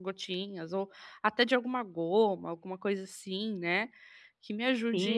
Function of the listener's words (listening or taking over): taking over